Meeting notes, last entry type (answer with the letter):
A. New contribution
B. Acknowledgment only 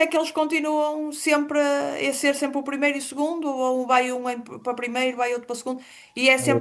B